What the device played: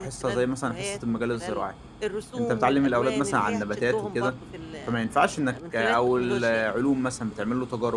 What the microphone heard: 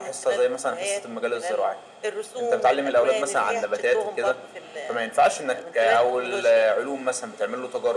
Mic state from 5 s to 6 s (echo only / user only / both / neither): echo only